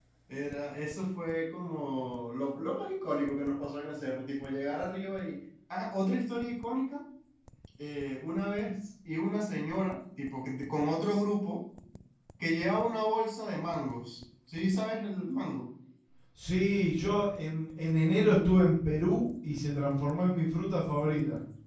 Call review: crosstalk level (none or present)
none